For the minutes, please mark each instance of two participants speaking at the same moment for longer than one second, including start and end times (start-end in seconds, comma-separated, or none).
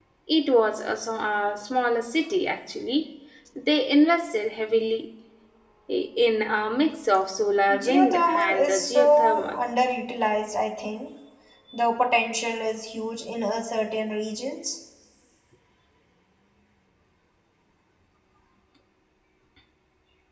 7.8-9.6